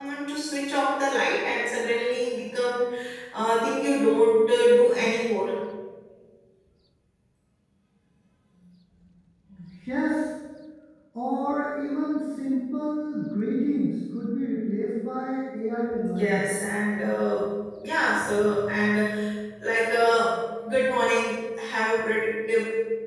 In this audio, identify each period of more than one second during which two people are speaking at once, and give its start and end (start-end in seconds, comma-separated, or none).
none